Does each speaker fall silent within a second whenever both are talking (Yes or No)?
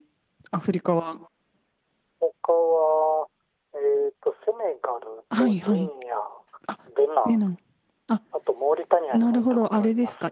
No